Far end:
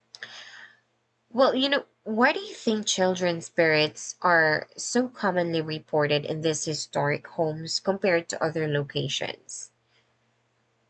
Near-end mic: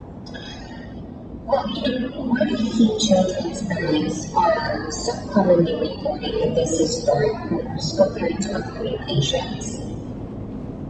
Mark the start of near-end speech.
none

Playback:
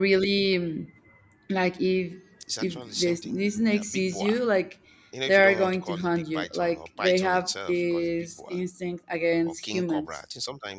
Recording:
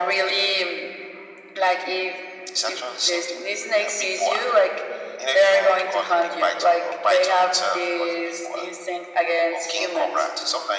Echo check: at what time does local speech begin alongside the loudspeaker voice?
none

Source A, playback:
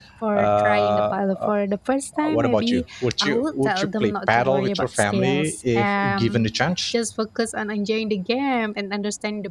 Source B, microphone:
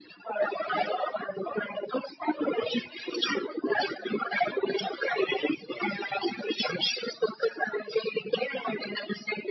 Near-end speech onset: none

